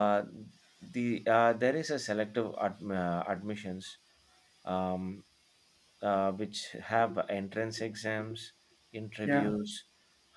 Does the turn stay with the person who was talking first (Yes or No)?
Yes